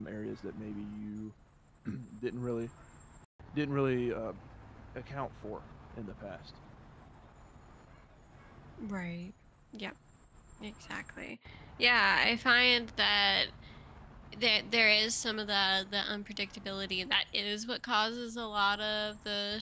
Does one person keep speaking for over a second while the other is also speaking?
No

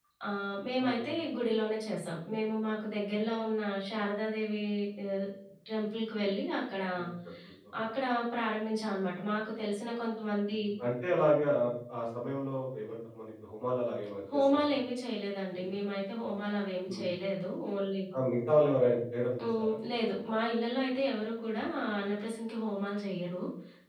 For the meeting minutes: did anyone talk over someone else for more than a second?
No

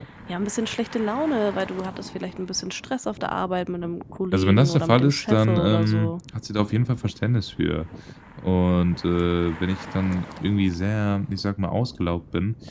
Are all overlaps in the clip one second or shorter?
No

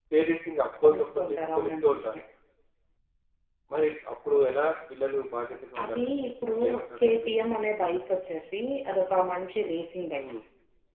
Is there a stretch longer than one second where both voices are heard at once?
Yes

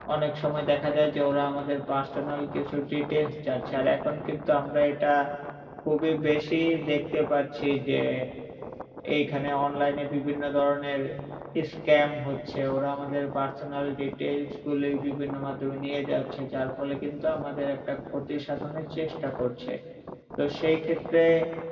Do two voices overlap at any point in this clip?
No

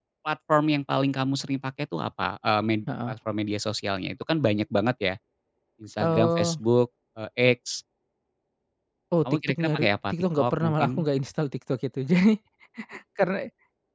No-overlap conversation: No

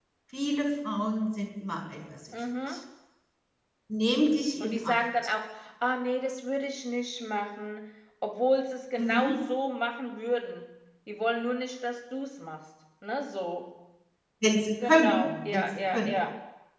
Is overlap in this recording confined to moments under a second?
No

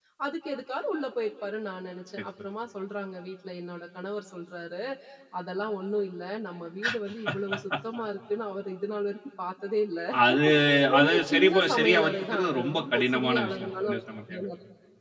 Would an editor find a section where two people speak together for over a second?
Yes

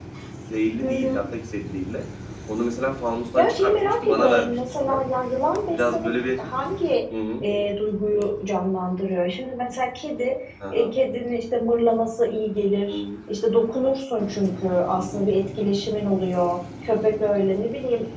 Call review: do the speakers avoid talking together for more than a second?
No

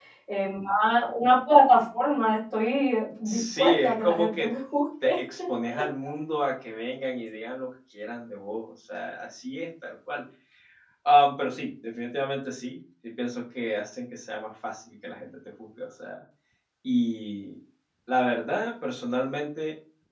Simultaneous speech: Yes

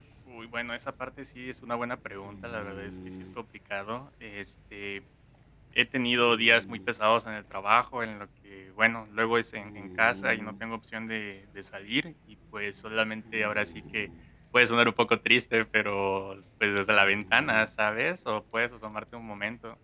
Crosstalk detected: No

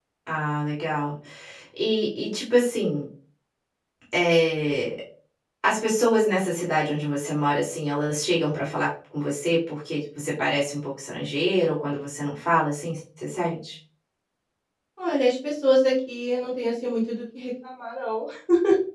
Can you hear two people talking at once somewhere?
No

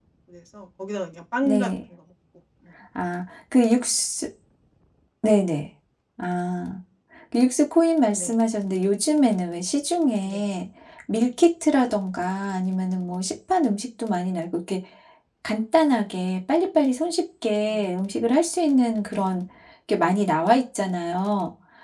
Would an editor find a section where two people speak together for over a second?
No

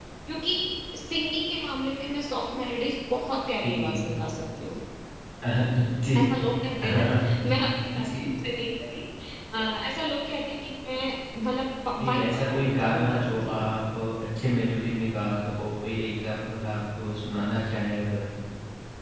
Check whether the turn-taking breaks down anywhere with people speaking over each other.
Yes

